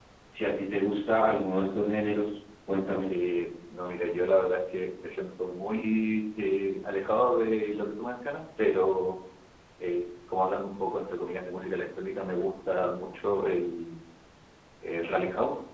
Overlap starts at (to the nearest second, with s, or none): none